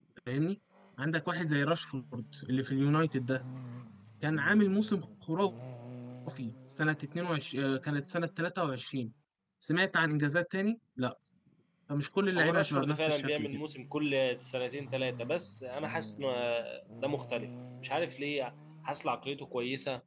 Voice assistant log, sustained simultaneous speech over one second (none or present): present